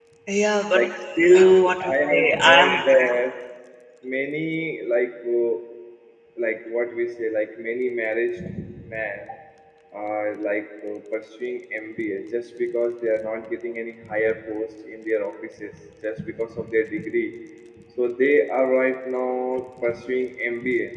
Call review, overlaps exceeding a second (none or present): present